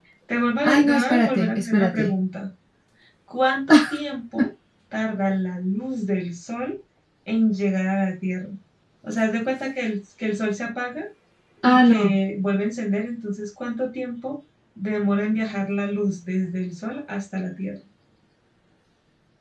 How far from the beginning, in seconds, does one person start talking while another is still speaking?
0.6 s

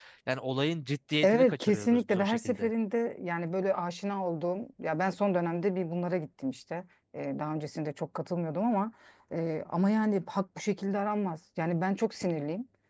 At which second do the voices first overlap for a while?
1.2 s

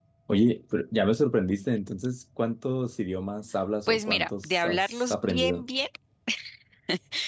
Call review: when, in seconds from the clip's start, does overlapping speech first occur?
3.9 s

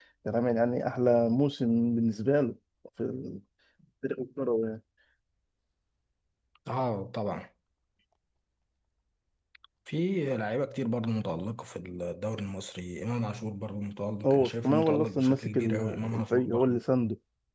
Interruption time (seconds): 14.2 s

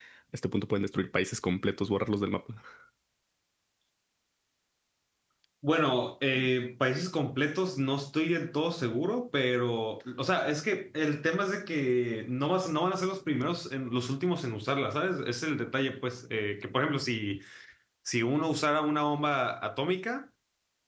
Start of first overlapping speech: none

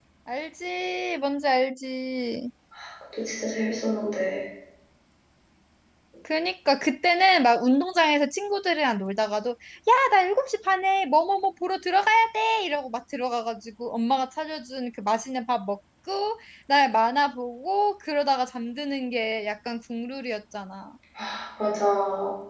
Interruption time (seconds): none

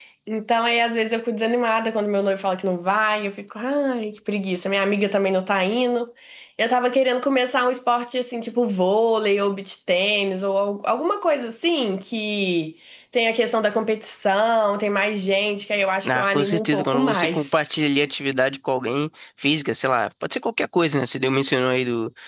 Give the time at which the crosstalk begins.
16.1 s

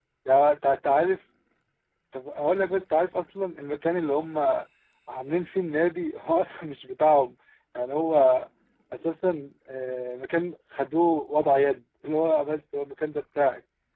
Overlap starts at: none

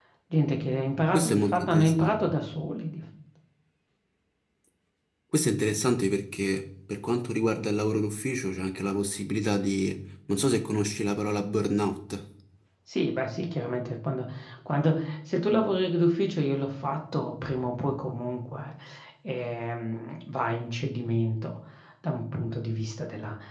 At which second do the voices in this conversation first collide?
1.1 s

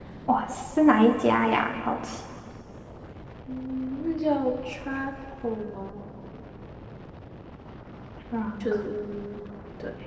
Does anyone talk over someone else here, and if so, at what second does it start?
none

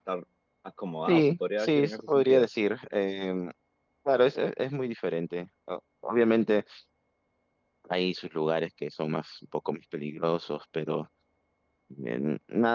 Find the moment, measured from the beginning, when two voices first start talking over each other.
1.1 s

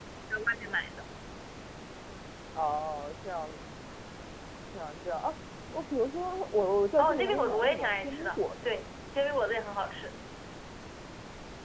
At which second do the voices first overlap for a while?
7.0 s

